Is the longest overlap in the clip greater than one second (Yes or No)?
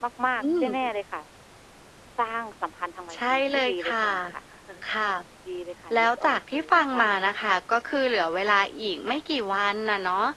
Yes